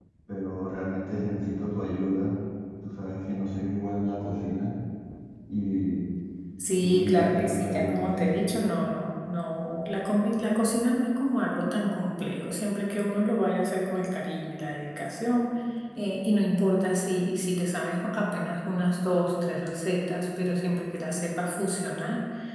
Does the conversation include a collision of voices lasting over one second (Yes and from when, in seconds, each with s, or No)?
Yes, from 6.8 s